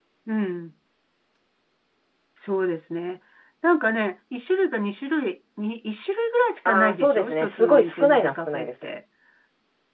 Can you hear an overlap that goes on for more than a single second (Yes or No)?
Yes